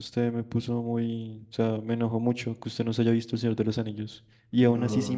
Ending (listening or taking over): listening